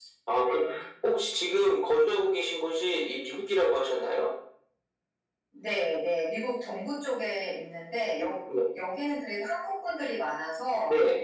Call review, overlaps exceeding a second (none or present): none